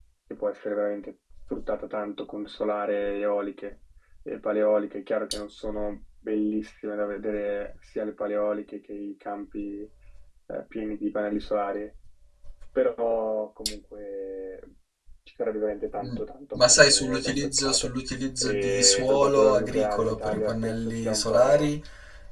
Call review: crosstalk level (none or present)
present